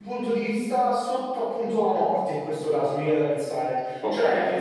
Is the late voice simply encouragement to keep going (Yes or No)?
Yes